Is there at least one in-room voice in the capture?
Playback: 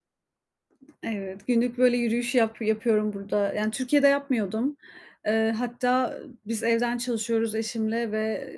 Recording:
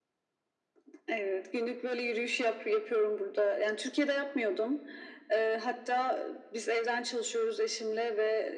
No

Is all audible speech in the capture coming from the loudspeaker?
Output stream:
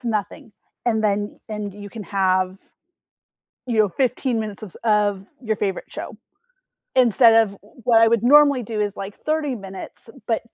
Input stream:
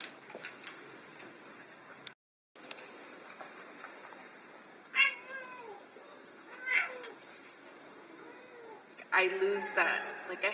No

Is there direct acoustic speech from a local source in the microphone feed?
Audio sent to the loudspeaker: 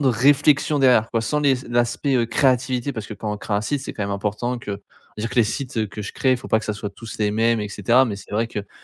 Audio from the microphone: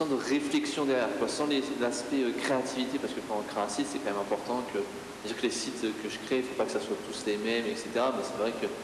No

